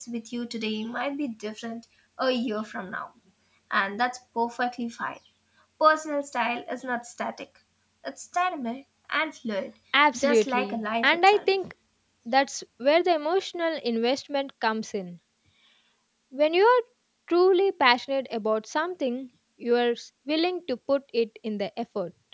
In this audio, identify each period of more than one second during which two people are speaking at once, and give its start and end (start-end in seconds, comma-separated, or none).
10.1-11.5